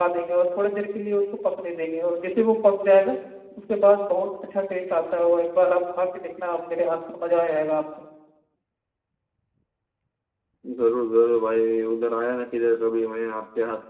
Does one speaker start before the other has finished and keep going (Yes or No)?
No